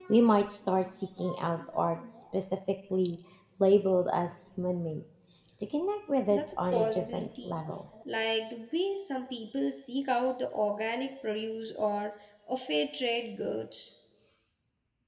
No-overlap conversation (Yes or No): No